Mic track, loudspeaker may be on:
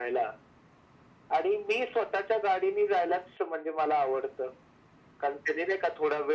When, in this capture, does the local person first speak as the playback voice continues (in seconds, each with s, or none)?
none